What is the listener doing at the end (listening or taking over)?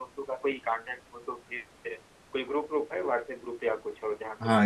taking over